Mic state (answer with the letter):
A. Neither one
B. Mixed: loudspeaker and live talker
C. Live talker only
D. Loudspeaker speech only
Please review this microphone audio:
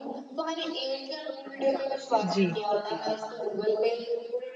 B